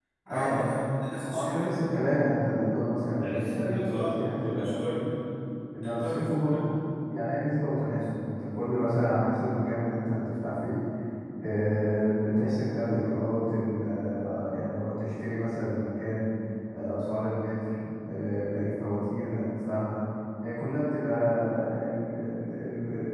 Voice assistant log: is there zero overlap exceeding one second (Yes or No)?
No